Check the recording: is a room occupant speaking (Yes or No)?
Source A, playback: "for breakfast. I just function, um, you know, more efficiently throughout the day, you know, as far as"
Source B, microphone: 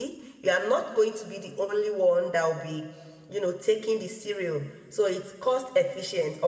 Yes